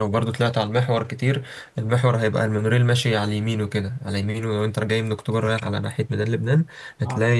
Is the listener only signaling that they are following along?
Yes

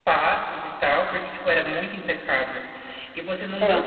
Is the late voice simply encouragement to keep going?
Yes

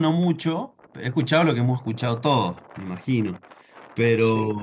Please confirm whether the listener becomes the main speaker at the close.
No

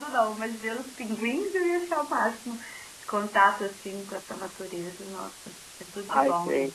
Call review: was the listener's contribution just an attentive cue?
No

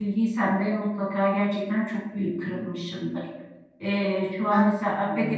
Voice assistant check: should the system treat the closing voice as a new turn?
No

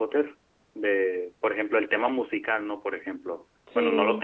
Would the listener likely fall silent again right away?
Yes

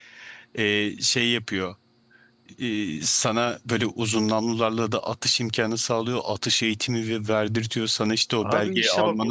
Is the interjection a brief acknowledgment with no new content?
No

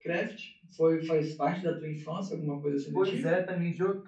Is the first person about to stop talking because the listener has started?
Yes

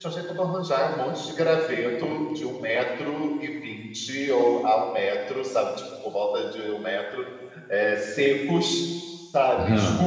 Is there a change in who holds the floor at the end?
No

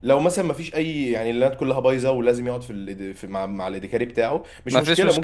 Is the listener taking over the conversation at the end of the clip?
No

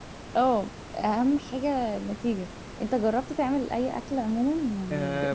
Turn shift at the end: Yes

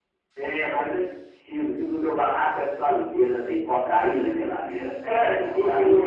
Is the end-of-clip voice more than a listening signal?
Yes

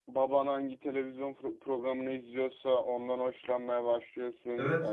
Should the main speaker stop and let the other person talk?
Yes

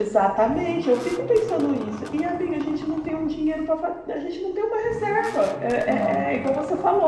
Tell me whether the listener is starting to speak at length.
No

